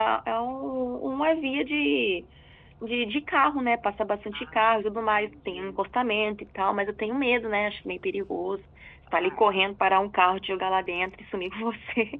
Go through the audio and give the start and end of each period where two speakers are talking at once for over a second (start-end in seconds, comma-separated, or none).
4.3-5.8